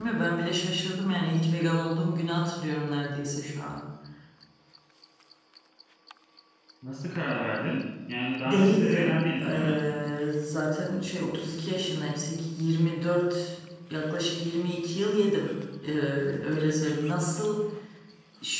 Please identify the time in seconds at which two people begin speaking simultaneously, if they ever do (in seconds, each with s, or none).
8.4 s